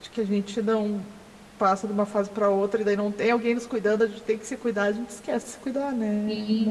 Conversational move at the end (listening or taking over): taking over